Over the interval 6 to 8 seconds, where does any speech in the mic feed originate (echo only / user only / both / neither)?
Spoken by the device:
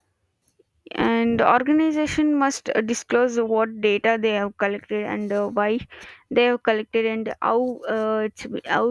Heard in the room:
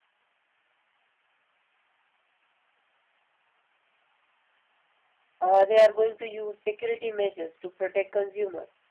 user only